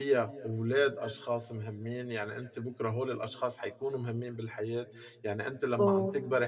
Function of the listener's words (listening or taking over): listening